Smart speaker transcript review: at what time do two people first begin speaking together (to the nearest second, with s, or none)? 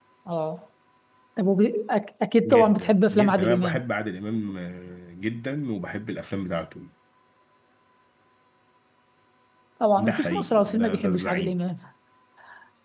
2 s